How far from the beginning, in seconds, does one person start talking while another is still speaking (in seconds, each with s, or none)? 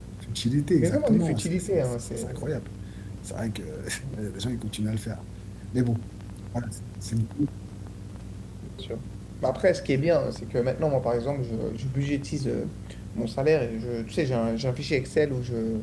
0.8 s